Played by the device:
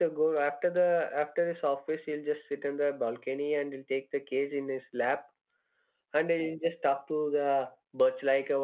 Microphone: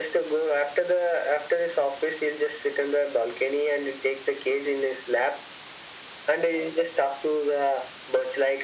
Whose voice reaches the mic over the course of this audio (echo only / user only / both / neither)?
echo only